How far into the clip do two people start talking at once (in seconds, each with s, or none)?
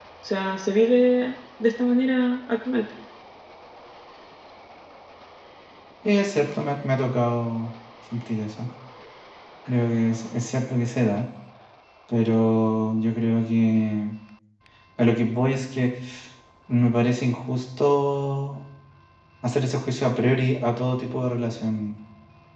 none